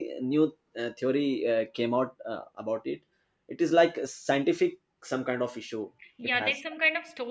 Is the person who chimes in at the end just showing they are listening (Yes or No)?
No